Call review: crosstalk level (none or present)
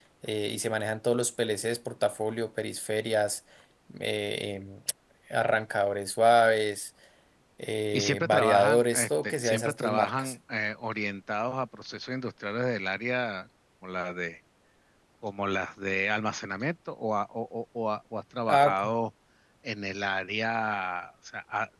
present